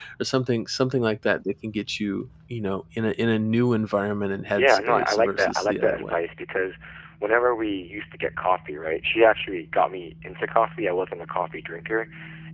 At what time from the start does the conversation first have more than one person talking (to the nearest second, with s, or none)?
5 s